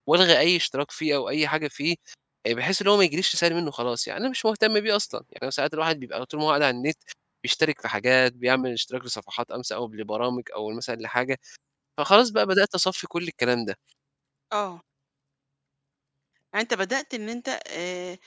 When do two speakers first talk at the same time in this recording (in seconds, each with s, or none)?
none